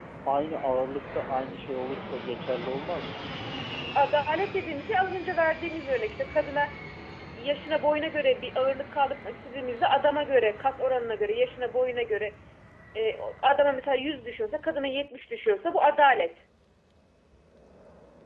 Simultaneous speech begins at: none

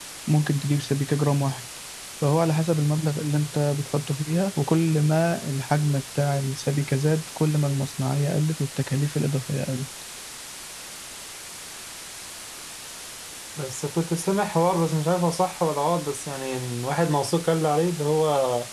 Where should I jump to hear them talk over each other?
none

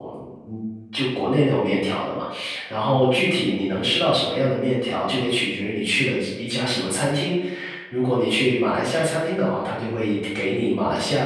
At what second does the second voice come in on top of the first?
none

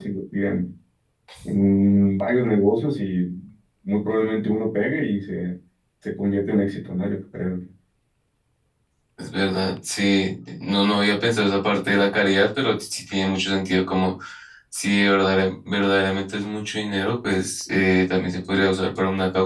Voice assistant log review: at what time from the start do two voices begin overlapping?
none

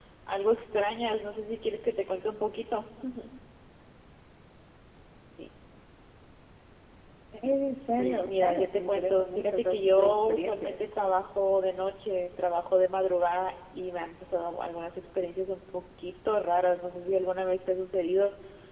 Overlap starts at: 7.7 s

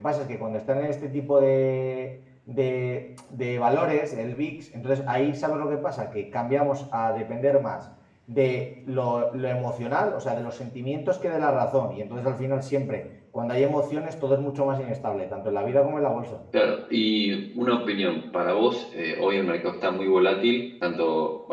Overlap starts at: none

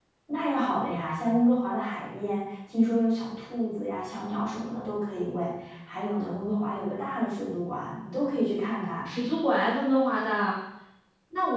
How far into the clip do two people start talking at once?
none

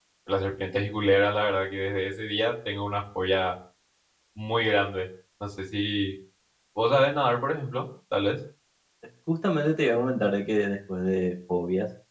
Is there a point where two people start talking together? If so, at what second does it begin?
none

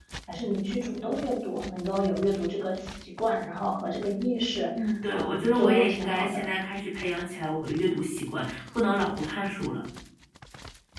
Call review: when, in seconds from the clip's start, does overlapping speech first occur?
4.7 s

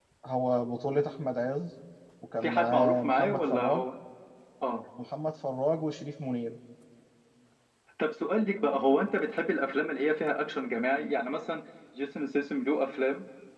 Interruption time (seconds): 2.4 s

